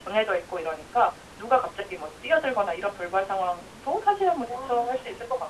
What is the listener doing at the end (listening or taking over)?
listening